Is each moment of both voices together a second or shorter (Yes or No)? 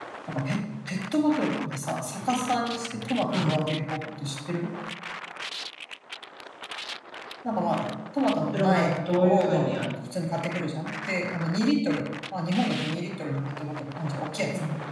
No